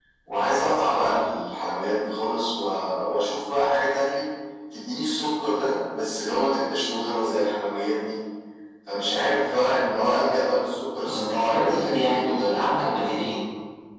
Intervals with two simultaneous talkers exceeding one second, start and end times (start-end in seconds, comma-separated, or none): 11.0-13.2